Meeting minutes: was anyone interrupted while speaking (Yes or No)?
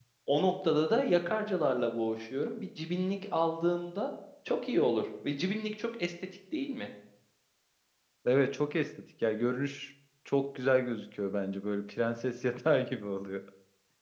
No